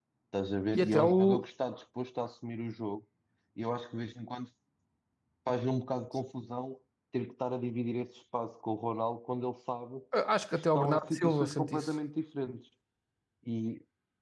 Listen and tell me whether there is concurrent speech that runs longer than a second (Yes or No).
Yes